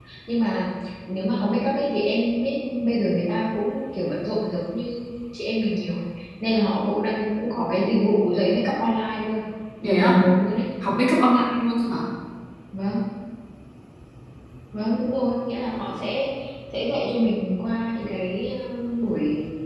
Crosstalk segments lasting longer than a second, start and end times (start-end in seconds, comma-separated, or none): none